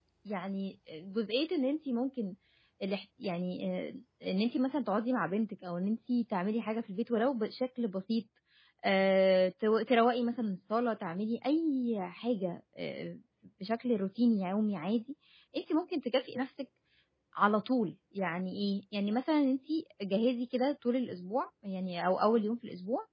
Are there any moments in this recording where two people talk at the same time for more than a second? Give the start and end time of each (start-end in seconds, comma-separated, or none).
none